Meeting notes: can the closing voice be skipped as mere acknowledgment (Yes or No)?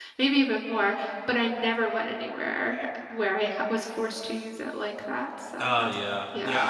No